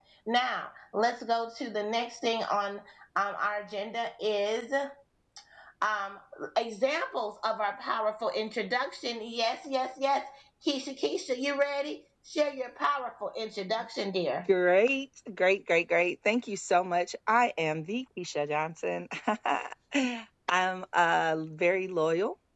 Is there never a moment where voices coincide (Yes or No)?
Yes